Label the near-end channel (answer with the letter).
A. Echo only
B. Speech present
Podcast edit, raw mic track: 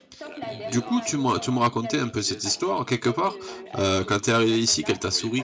B